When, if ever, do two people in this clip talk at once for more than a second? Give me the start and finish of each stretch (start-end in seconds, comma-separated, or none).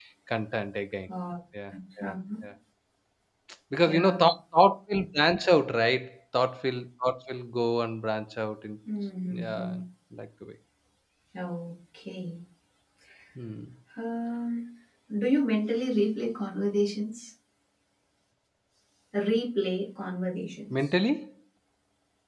none